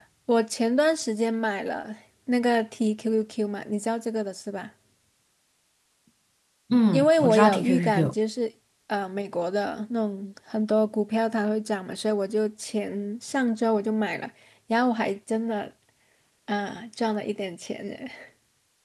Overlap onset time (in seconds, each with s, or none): 6.9 s